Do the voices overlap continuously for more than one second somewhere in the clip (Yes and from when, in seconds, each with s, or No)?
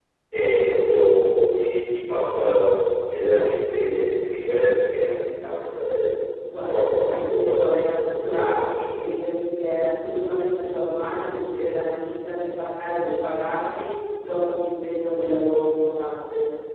Yes, from 6.7 s